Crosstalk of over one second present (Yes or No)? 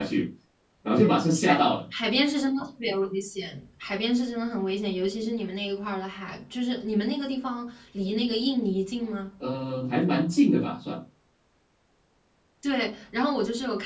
No